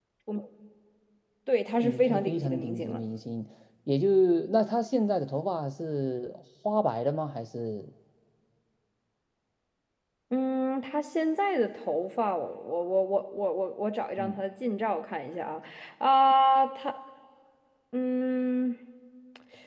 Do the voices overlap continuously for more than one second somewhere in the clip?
Yes, from 1.8 s

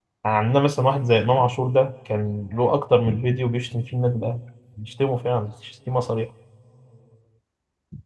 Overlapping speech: No

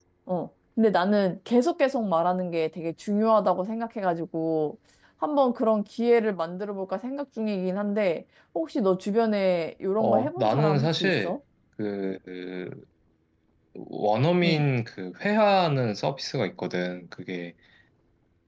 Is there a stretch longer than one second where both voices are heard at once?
Yes, from 10.0 s

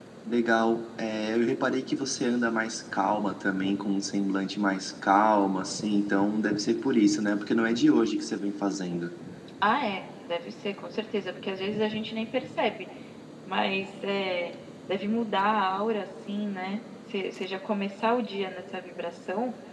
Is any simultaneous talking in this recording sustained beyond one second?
No

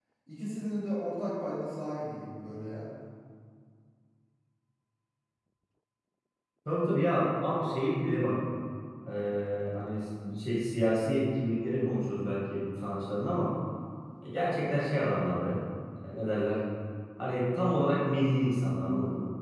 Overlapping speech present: No

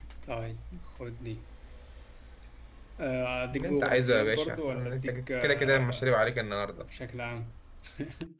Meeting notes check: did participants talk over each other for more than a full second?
Yes, from 3.5 s

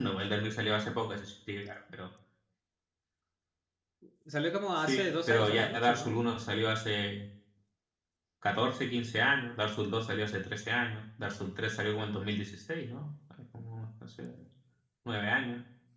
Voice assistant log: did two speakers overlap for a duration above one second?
Yes, from 4.8 s

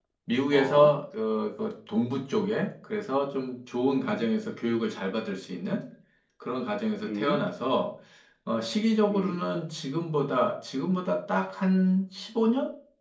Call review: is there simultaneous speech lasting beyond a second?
No

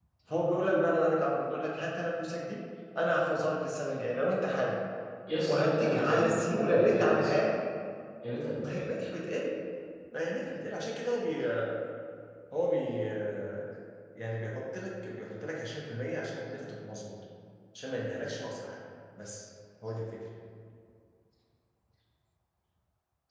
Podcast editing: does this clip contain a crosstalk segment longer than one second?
Yes, from 5.5 s

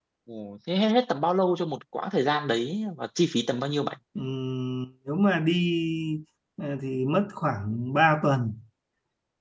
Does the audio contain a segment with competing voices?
No

